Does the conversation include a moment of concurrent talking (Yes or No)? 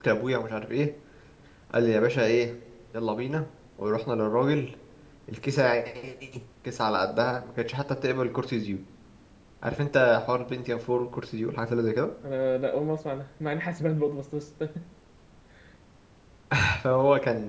No